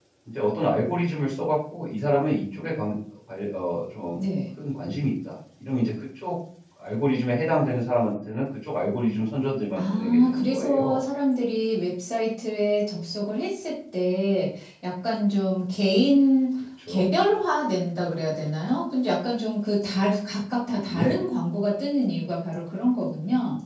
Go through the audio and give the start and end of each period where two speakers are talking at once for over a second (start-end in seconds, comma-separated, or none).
9.8-11.0